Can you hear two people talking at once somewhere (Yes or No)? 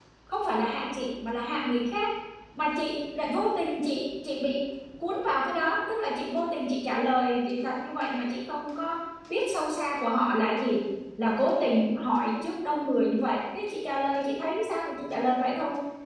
No